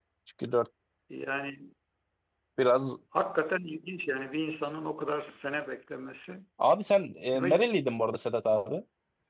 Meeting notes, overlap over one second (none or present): none